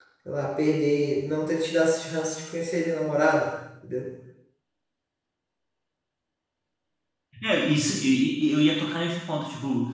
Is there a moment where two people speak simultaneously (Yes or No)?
No